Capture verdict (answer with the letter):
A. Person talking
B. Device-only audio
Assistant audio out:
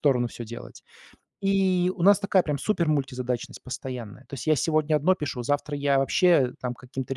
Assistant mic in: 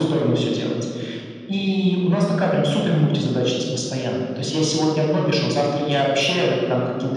B